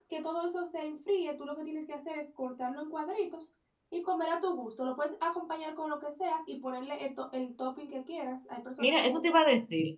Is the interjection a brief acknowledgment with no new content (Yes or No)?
No